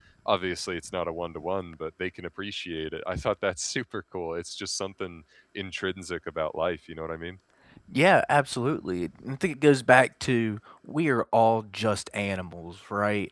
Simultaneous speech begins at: none

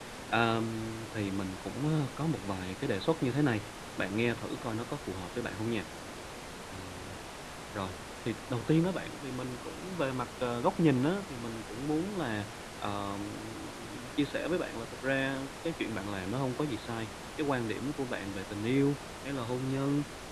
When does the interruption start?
none

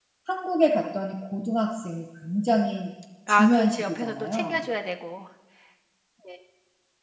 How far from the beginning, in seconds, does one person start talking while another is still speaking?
3.3 s

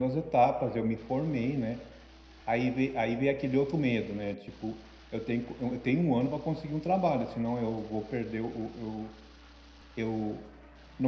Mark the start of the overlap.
none

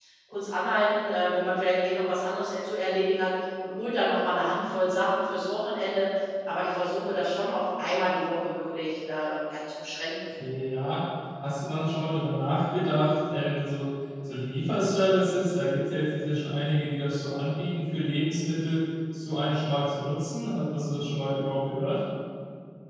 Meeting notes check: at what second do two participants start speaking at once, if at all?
none

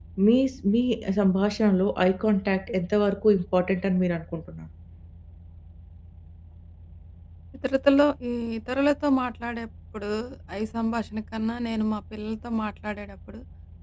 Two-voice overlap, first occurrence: none

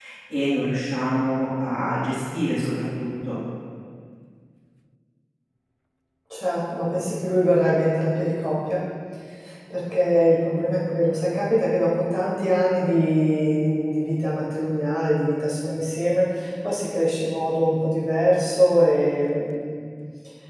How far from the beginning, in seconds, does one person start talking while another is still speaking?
none

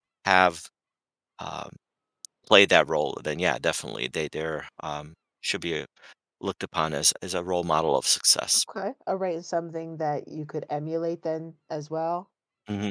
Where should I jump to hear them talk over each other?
none

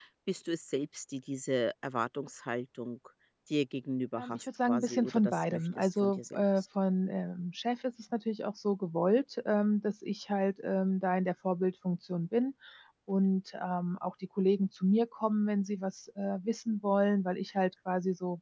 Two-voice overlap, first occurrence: 4.2 s

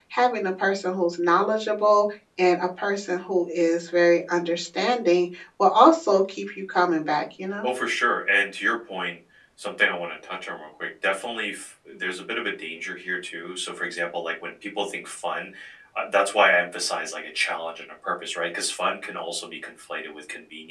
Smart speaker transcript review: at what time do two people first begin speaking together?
none

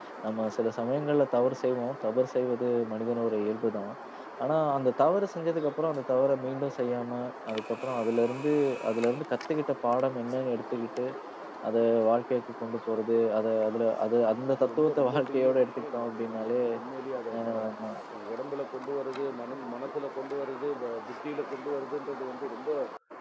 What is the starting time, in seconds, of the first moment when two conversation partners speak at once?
14.5 s

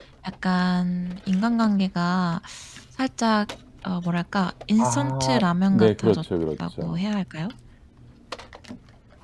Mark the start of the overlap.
4.8 s

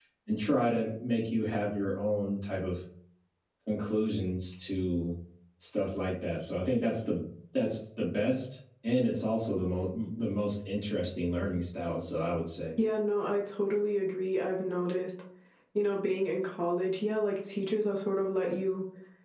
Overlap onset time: none

